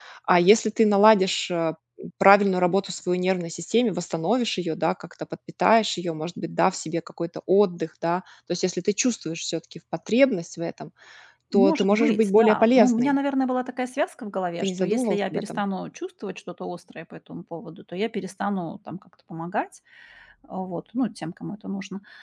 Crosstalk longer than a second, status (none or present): present